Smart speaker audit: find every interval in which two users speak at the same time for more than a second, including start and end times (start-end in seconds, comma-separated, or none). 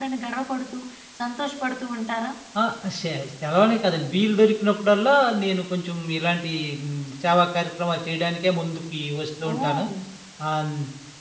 none